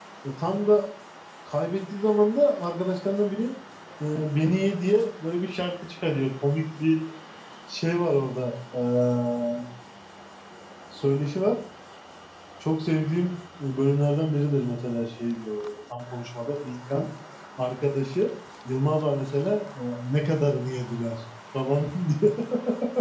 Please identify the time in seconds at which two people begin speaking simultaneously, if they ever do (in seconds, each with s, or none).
none